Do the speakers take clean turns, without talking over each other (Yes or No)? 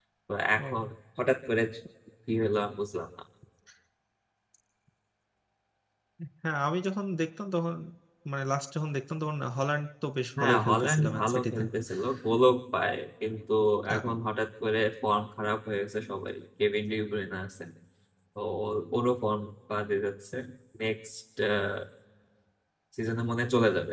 No